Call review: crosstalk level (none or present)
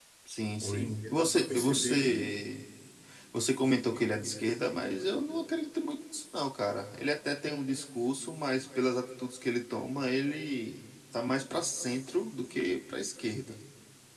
present